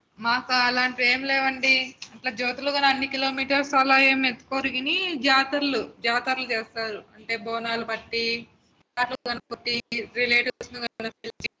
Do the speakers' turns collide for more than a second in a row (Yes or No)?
No